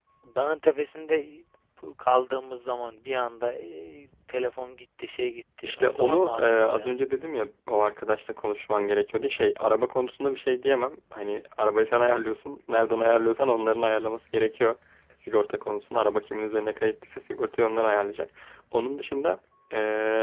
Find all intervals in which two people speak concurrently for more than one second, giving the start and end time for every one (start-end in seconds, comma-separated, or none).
5.6-6.9